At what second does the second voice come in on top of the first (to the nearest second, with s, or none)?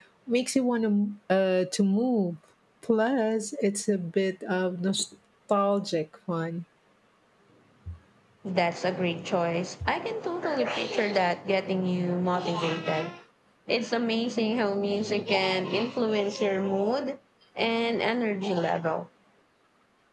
none